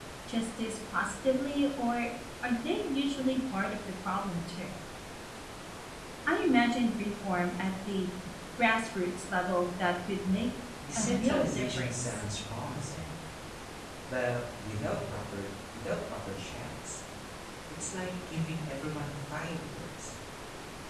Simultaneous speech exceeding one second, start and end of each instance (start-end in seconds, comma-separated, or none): 11.0-12.2